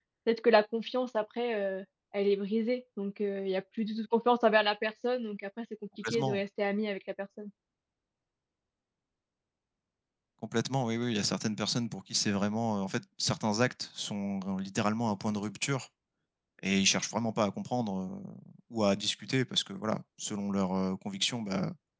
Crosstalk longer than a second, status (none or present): none